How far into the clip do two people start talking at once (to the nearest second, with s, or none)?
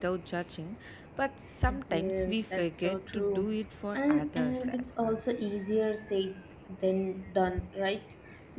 2 s